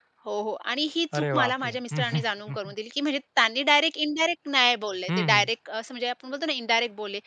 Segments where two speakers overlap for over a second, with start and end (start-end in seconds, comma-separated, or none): 1.2-2.7